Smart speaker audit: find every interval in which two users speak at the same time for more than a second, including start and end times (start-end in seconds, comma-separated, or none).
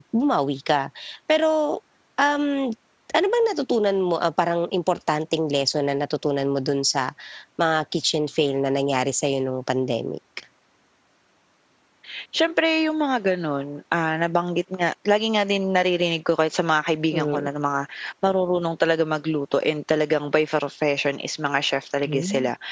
none